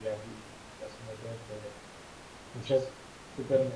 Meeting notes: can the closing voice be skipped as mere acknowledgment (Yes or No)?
Yes